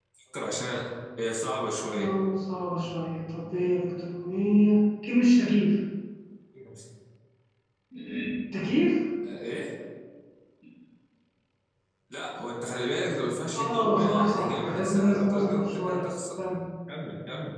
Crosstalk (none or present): present